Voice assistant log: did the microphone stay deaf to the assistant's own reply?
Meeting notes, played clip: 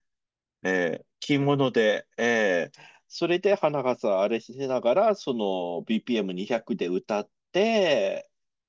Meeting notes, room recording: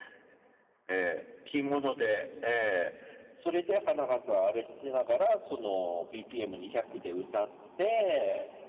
No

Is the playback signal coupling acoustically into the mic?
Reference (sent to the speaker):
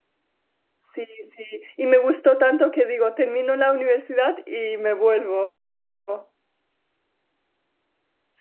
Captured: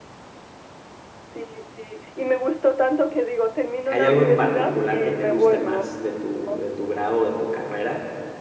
Yes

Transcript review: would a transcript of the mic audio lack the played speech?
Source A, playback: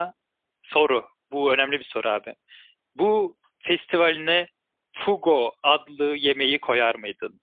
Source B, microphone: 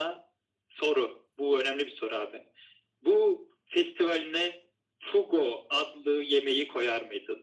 No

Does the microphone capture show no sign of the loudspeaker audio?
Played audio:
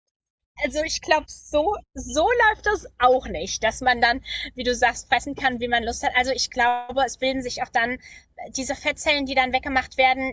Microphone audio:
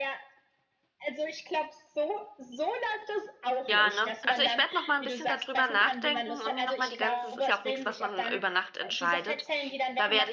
No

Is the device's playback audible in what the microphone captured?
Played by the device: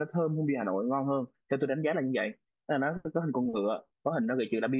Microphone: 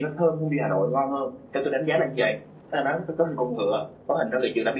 Yes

